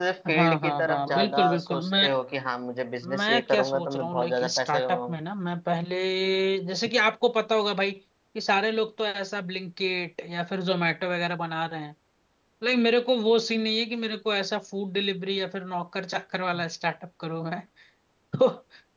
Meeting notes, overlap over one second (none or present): present